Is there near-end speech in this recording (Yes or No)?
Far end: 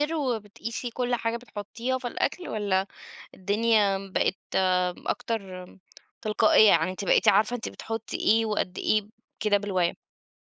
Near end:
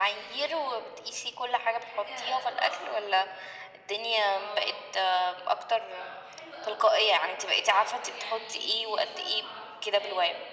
Yes